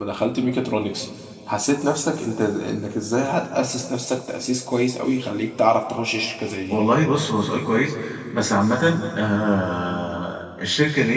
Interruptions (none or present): none